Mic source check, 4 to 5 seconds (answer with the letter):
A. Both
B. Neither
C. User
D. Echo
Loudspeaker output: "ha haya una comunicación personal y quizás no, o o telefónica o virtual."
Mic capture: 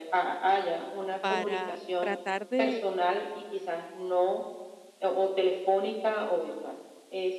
D